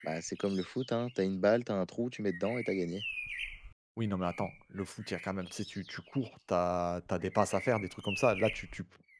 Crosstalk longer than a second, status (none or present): none